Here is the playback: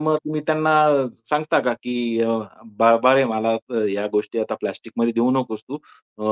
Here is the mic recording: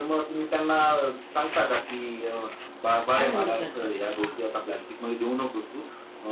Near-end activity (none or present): present